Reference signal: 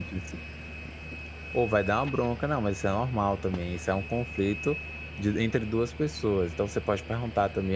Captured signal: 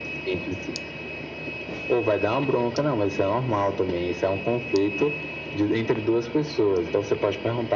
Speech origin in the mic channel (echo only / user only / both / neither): echo only